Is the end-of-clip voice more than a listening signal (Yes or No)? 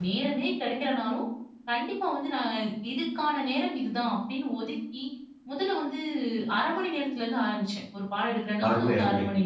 Yes